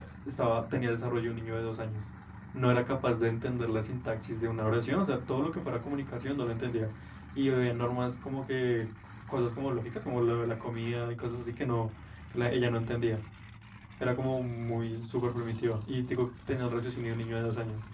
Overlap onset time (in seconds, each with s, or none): none